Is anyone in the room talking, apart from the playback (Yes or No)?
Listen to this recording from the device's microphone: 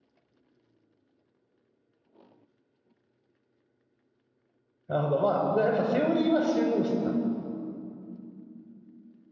Yes